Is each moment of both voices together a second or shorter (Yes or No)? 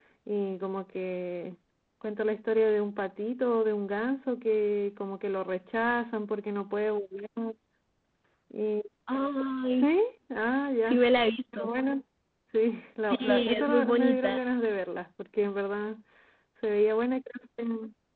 No